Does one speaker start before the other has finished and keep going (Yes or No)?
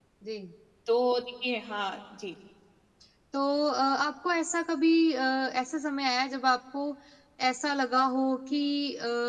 No